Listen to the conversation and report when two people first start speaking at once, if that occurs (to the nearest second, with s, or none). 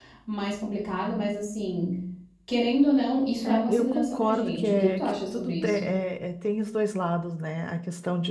3 s